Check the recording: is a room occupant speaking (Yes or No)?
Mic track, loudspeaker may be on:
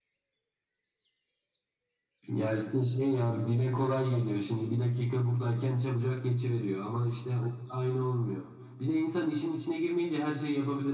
No